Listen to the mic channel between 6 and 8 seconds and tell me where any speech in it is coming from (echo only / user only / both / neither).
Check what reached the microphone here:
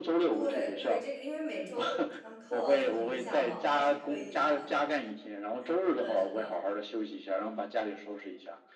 both